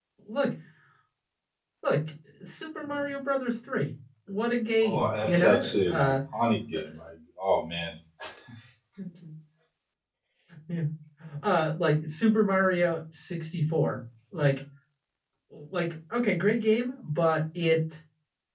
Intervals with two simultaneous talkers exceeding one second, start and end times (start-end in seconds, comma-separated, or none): 4.8-6.1